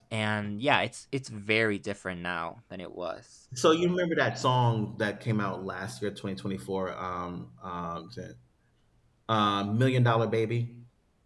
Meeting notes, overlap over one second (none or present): none